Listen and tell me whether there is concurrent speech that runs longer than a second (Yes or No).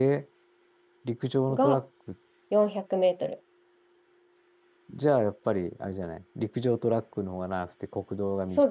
No